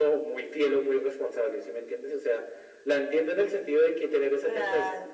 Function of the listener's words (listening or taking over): listening